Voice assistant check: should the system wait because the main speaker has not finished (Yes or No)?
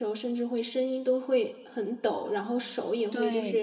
Yes